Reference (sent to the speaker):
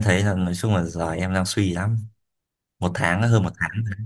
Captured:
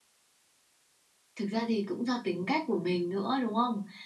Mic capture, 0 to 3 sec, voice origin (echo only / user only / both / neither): user only